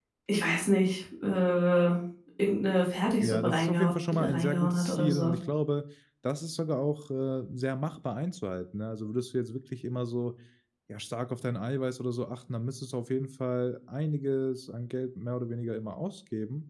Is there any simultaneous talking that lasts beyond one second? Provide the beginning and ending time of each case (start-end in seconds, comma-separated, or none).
3.2-5.3